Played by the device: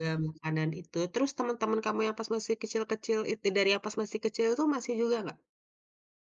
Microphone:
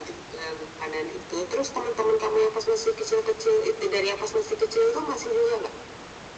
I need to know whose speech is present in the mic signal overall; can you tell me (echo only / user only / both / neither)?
echo only